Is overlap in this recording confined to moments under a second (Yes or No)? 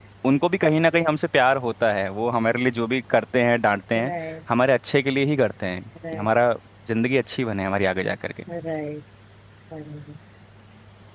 Yes